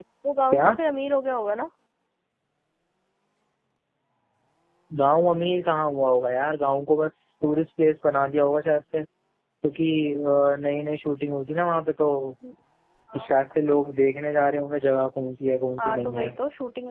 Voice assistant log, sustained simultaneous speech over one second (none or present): none